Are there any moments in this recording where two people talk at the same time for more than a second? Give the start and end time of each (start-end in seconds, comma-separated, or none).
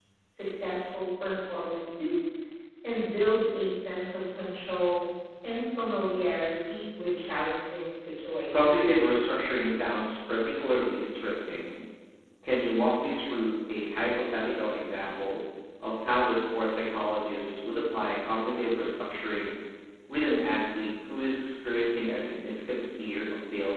none